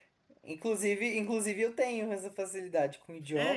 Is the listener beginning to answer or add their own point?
Yes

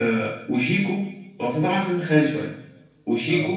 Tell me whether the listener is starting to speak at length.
No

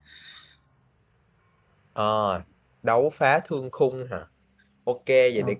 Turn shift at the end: No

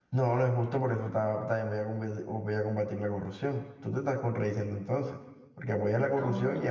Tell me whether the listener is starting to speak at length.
No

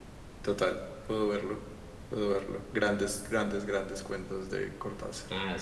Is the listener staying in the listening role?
No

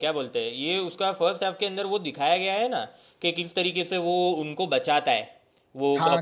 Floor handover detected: Yes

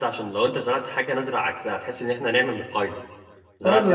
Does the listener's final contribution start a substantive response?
Yes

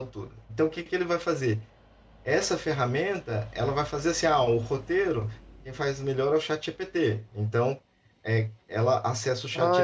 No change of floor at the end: No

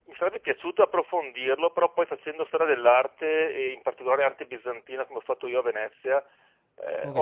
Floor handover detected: No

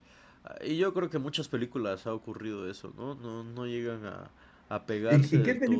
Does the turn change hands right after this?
Yes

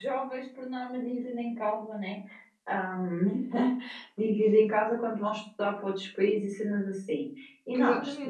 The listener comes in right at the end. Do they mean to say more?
No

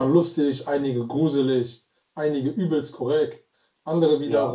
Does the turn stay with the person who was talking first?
Yes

